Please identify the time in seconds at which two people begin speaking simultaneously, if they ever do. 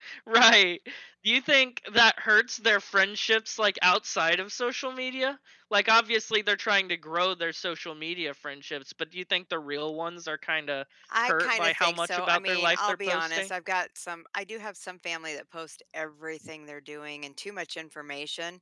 11.1 s

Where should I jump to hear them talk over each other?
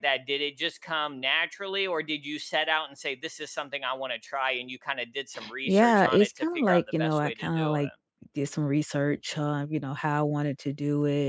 5.6 s

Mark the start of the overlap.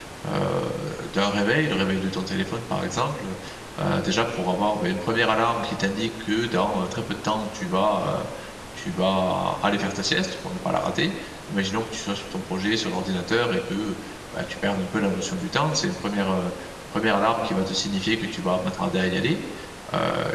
none

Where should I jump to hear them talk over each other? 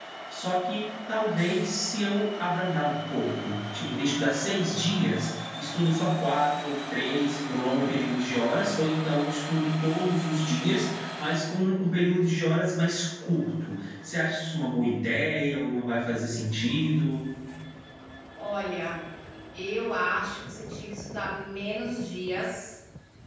none

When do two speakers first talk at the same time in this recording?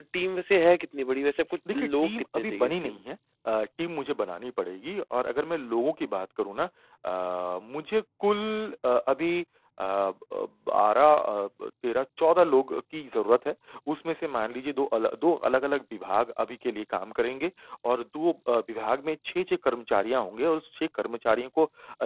1.7 s

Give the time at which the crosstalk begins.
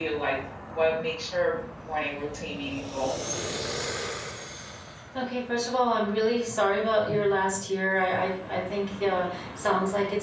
none

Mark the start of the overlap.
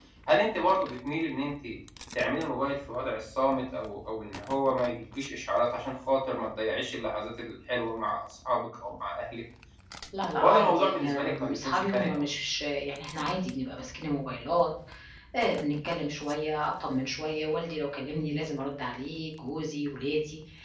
10.4 s

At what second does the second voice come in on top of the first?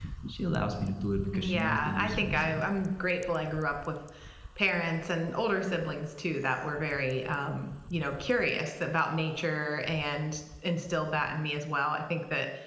1.3 s

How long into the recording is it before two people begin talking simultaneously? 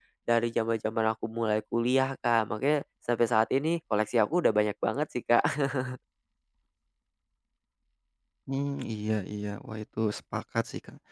none

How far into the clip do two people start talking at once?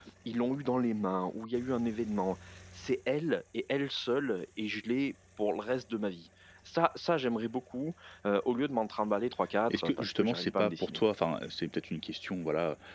9.7 s

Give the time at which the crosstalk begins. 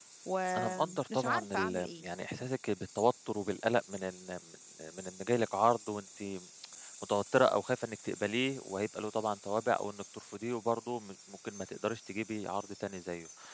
0.6 s

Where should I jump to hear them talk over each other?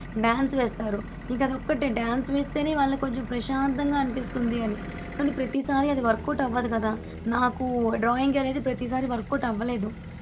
none

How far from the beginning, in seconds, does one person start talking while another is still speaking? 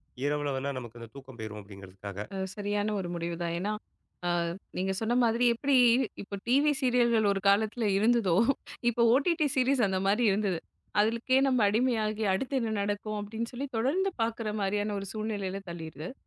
none

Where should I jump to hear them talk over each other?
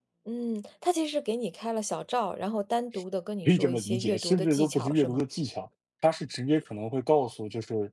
3.5 s

